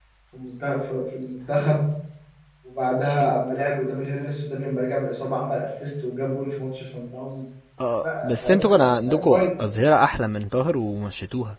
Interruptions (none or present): present